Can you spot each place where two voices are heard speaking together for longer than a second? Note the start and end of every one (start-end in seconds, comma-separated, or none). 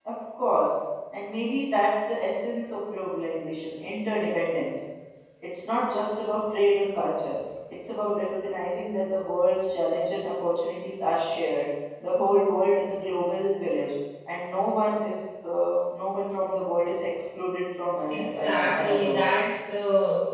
18.1-19.3